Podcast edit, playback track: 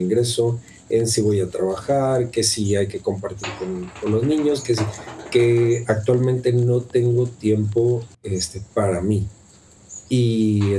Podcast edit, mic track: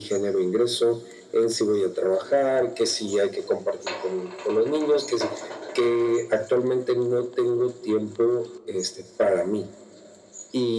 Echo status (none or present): present